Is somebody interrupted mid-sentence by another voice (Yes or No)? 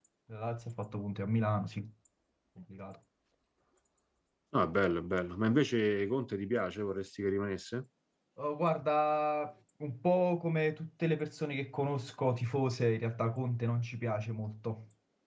No